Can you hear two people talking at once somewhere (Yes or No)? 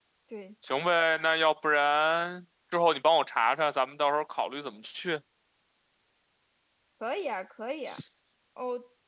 No